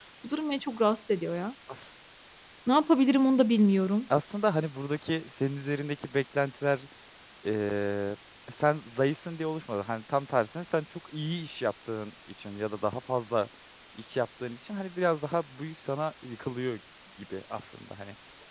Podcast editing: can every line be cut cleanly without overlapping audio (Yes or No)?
Yes